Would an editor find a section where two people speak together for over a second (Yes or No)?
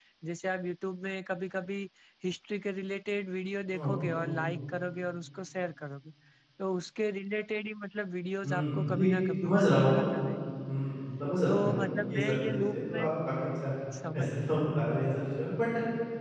Yes